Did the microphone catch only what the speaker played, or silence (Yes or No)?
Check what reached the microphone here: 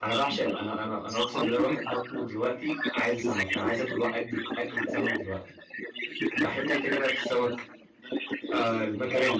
No